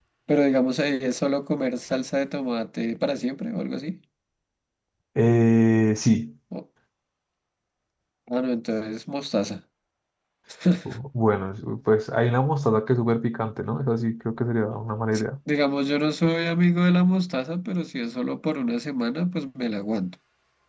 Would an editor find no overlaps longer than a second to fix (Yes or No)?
Yes